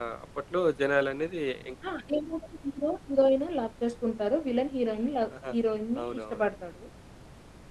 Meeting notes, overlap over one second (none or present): none